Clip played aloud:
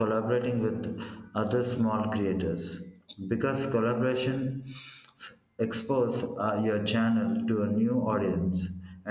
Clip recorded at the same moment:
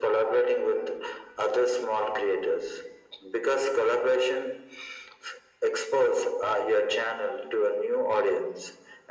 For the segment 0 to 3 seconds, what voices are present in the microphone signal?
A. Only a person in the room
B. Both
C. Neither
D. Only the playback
D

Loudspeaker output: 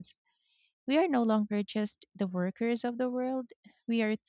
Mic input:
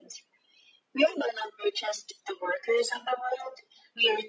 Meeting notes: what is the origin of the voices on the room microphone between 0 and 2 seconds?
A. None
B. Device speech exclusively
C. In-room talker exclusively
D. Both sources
B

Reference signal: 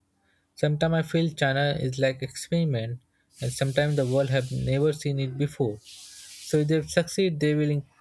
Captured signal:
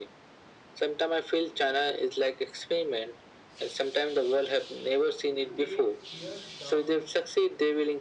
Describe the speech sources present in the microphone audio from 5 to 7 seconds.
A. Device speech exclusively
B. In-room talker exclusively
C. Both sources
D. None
C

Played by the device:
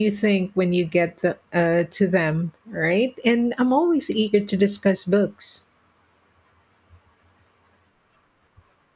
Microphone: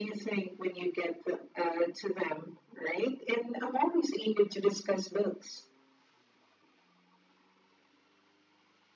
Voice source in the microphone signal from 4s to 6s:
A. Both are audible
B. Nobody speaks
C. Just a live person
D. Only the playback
D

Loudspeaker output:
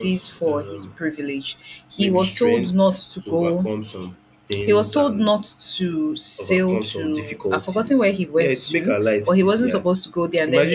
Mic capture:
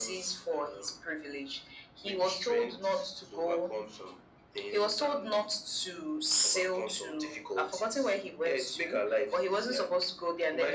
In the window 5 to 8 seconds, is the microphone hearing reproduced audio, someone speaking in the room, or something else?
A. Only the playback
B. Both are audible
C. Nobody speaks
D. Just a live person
A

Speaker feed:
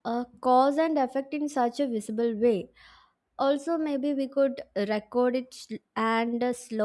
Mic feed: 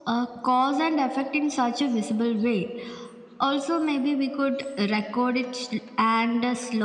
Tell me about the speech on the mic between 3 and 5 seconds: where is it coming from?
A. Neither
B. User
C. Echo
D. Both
C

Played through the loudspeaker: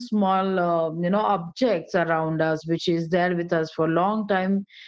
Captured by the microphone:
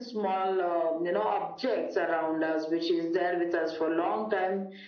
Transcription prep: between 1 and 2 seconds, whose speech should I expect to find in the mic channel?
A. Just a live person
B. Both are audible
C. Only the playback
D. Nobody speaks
C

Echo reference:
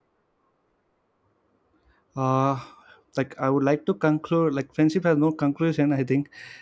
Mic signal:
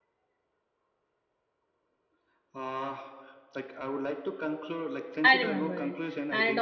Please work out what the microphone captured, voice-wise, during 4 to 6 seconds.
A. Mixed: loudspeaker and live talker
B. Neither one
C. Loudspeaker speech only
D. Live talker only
A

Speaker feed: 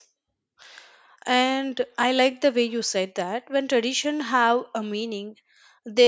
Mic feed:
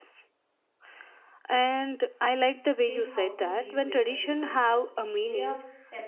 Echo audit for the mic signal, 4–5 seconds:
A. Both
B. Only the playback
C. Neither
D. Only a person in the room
A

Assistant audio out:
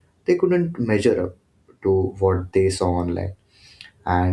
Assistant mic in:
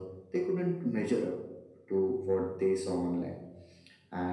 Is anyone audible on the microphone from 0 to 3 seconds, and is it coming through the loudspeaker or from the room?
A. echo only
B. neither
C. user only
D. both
A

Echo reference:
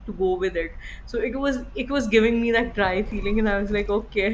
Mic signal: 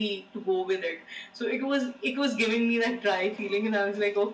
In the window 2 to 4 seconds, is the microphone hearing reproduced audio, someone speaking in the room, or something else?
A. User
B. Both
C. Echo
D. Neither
C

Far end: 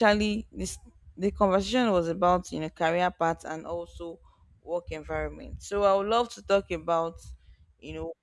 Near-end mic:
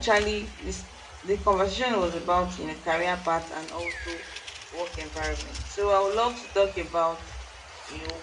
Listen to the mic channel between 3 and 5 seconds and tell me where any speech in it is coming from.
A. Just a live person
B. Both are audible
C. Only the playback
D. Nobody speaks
C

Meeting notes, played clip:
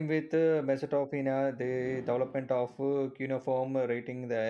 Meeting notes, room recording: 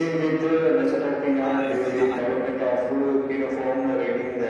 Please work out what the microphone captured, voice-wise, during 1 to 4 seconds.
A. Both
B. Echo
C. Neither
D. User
A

